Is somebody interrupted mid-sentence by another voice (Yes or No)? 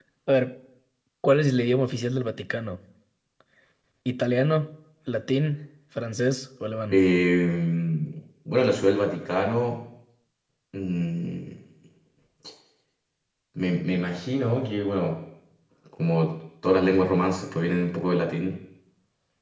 No